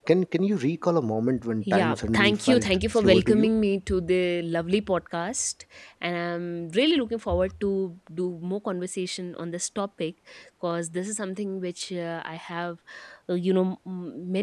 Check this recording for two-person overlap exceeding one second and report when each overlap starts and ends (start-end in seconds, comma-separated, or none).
1.6-3.5